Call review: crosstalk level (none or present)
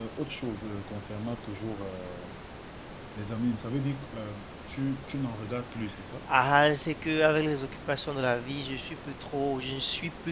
none